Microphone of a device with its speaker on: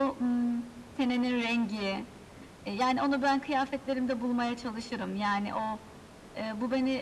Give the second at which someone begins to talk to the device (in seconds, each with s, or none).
none